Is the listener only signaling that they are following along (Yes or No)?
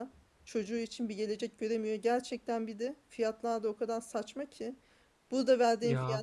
Yes